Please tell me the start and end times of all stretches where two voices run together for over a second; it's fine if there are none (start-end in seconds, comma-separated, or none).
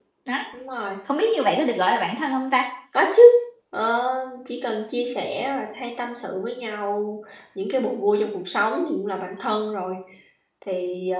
none